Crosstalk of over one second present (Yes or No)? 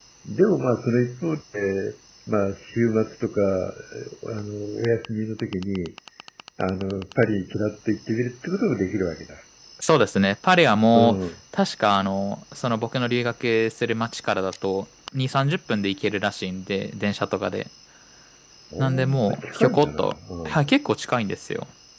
Yes